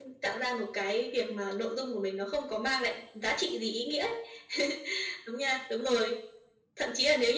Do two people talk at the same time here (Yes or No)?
No